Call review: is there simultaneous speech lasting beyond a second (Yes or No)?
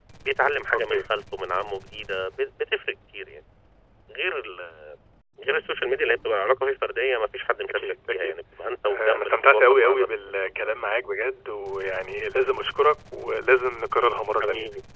Yes